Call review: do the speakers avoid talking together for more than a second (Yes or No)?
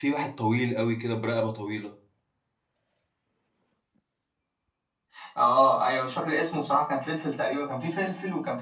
Yes